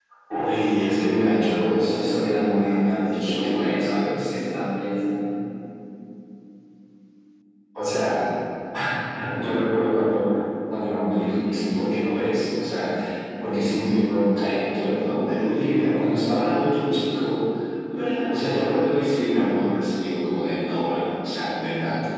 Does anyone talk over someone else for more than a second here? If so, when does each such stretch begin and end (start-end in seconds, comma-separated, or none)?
1.8-4.3